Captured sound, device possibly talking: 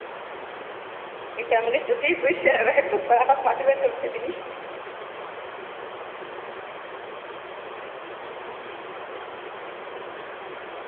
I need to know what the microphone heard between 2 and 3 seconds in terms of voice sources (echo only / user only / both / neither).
user only